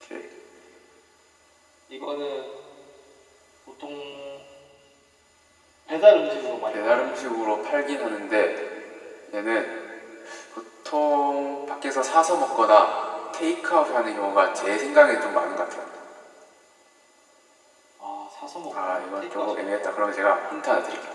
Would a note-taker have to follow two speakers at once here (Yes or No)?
Yes